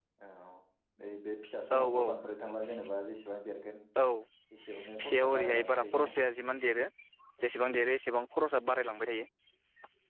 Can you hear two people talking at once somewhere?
Yes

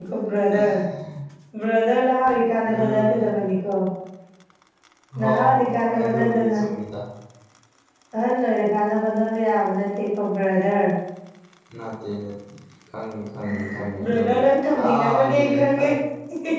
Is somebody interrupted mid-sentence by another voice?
Yes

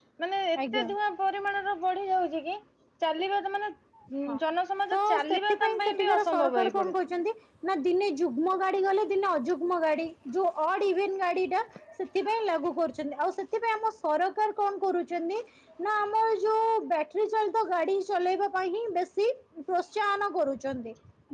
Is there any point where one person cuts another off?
Yes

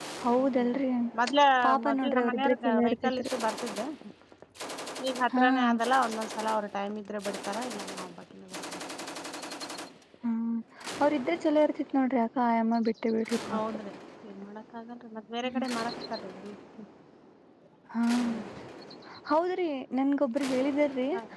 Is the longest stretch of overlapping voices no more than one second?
No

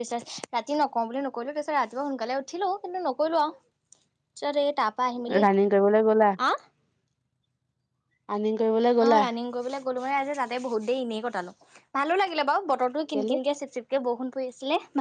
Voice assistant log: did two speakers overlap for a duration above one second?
No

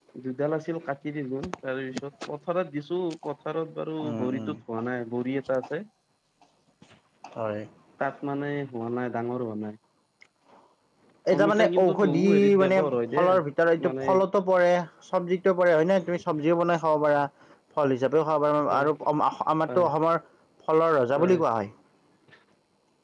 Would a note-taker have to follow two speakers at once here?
Yes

